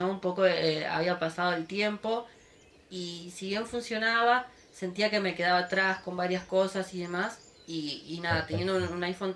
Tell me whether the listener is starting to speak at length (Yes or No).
No